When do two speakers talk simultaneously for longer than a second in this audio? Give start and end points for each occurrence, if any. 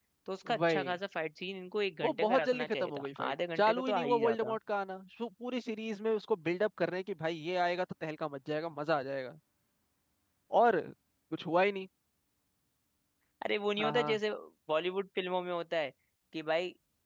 2.0-4.6

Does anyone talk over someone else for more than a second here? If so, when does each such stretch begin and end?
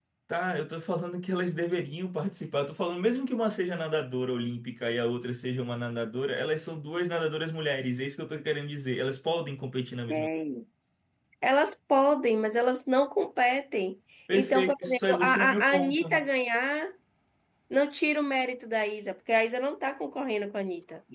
14.3-16.0

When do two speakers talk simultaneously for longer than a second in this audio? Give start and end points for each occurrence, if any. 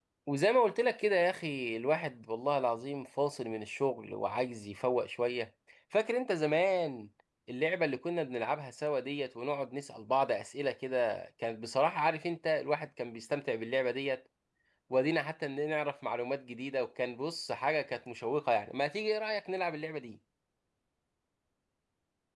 none

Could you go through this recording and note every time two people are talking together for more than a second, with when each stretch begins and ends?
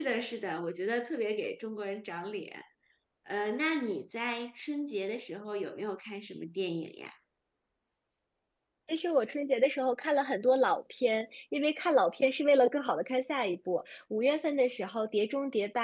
none

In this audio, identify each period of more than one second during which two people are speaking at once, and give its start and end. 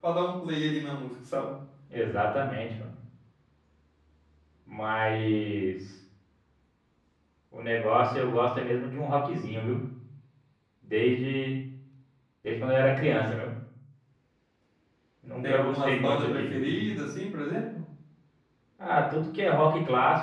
15.4-16.8

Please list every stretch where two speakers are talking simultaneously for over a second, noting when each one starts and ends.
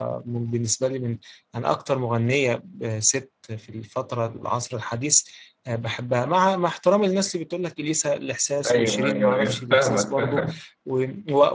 8.7-10.5

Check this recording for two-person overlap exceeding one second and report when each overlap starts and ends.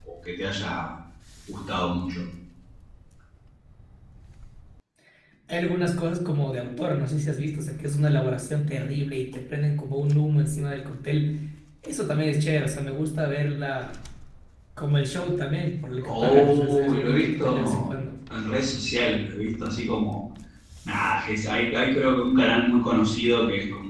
16.0-17.9

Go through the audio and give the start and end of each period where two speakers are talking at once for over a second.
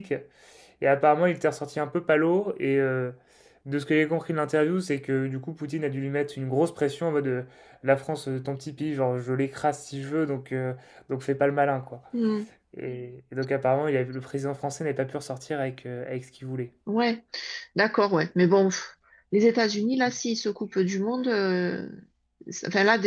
none

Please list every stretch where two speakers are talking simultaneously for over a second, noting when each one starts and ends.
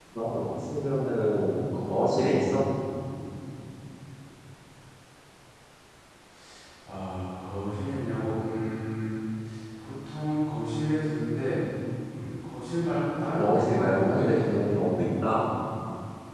13.3-14.6

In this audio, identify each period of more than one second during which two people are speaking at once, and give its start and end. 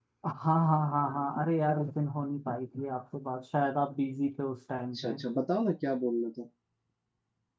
none

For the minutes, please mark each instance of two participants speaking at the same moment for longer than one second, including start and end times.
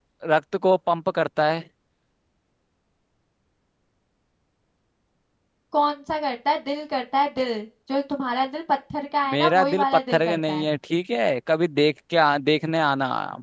9.3-10.7

